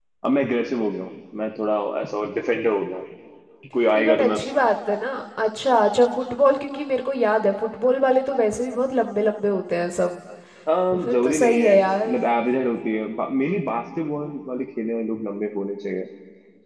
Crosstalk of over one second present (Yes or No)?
Yes